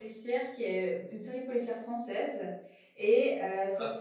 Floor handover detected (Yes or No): No